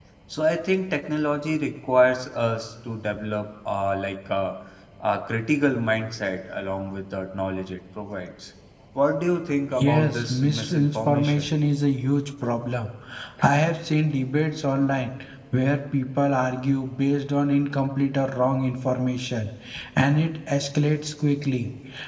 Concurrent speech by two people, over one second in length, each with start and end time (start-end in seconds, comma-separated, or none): 9.8-11.5